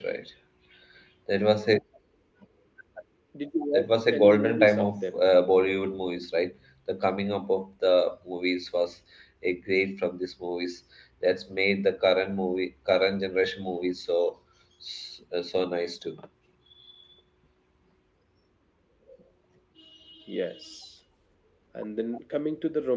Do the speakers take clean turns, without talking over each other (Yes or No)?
No